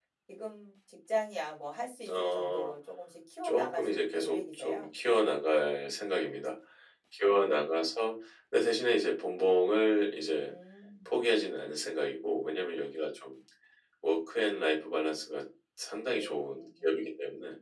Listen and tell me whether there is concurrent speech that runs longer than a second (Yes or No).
Yes